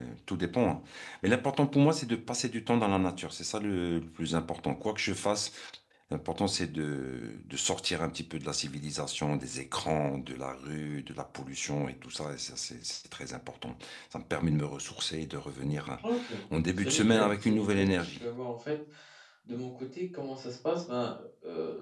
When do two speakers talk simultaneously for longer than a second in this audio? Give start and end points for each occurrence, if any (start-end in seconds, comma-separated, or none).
16.8-18.1